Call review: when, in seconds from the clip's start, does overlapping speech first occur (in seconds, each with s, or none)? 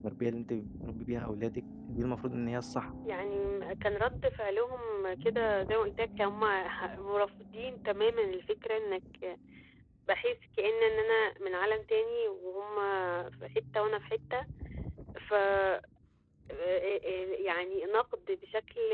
none